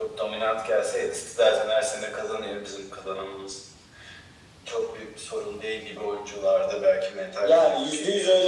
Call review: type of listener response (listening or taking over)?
taking over